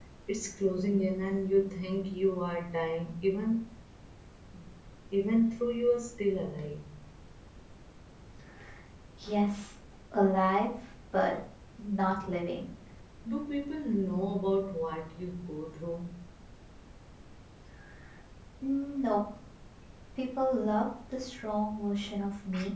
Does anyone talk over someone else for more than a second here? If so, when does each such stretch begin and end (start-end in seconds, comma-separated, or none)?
none